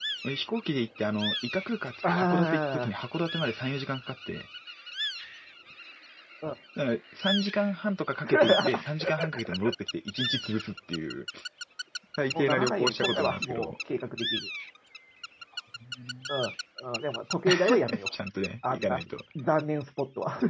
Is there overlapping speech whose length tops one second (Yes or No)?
Yes